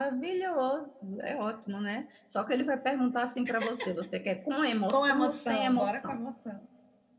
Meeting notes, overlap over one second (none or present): present